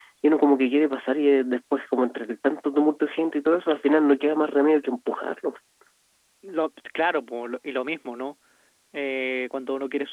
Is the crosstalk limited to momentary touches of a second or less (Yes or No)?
Yes